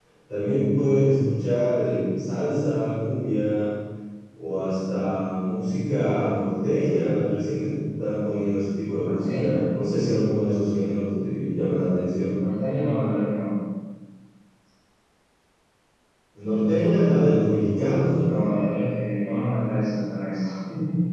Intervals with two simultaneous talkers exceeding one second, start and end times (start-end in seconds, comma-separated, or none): none